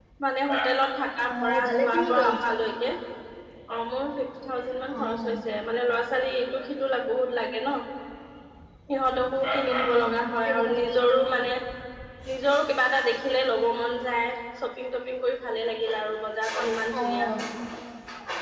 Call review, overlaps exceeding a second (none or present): present